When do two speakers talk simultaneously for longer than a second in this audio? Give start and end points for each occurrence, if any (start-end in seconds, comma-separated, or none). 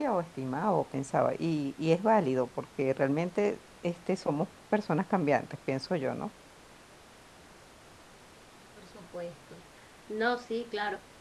none